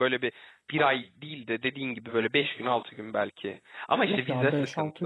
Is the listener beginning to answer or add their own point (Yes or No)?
Yes